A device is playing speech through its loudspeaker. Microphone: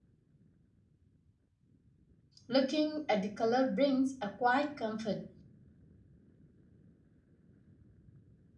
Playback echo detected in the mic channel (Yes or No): No